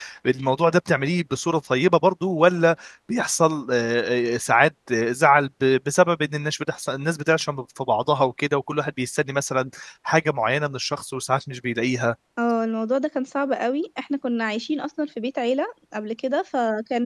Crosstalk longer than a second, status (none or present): none